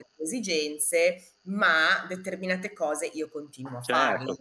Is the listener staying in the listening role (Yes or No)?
No